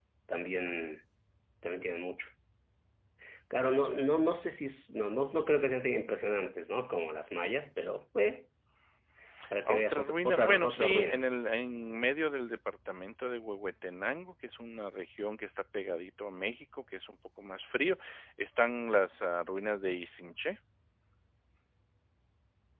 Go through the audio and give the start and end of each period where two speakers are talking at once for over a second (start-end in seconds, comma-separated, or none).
9.7-11.2